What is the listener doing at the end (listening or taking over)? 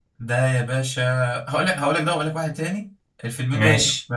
listening